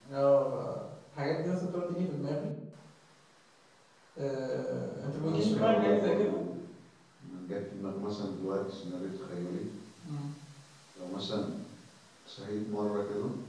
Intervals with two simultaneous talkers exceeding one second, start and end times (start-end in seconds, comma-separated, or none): 5.0-6.3